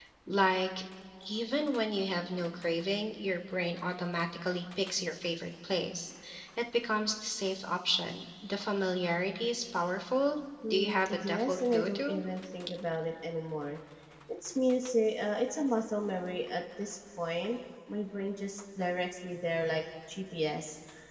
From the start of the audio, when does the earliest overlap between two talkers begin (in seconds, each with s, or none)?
10.6 s